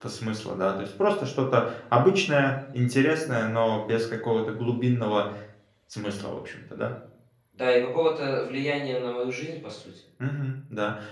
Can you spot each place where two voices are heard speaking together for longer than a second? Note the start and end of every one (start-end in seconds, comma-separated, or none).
none